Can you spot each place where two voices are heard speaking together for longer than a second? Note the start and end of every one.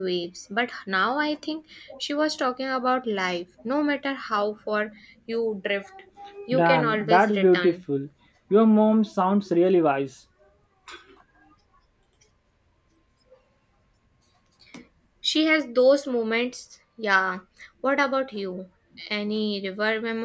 6.5-7.8

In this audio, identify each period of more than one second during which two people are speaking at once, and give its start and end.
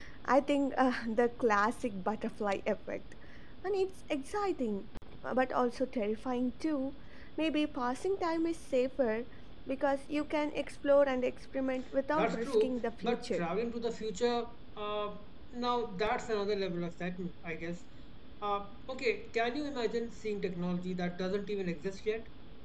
12.1-13.4

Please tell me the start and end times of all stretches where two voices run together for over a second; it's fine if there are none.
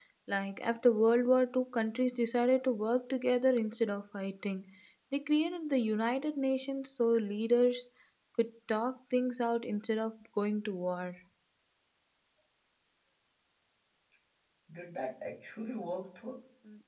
none

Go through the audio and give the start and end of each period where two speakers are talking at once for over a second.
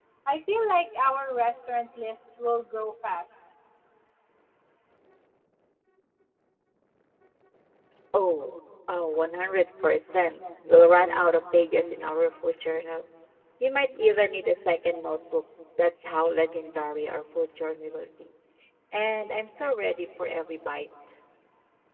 none

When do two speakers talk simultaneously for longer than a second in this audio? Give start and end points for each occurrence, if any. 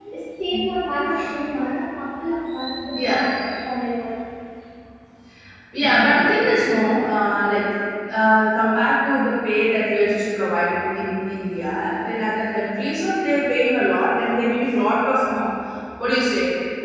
none

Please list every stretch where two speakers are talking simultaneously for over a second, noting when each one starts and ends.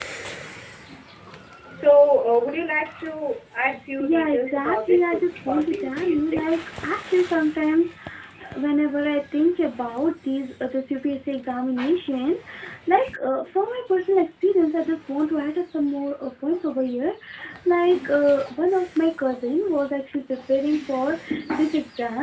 4.0-6.5

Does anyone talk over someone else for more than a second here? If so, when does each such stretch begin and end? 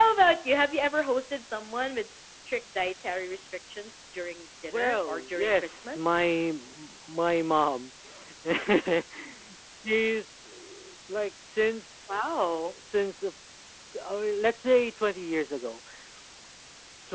4.6-6.2

